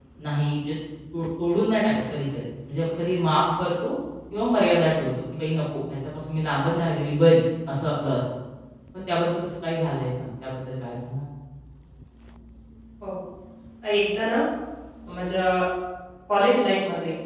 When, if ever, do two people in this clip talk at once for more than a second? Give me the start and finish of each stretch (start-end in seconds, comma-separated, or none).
none